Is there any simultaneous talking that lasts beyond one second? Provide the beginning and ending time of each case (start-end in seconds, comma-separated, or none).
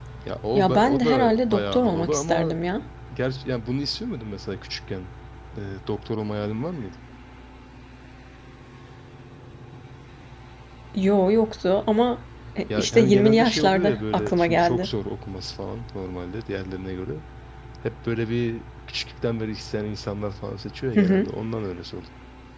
0.5-2.6, 12.7-14.9